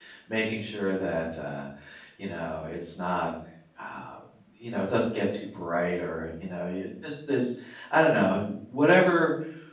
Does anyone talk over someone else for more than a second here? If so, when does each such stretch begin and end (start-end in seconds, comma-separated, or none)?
none